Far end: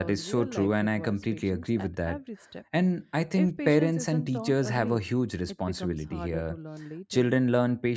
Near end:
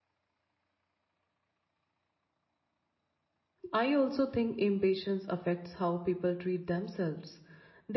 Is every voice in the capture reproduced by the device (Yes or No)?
No